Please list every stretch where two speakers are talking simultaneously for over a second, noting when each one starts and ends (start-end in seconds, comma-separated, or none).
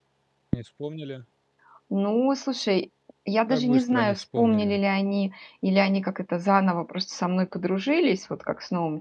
3.5-4.8